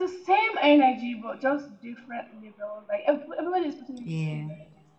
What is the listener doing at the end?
listening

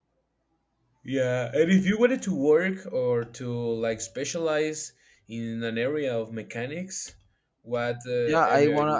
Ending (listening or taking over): taking over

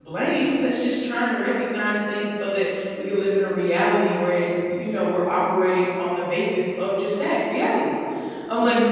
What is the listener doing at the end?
listening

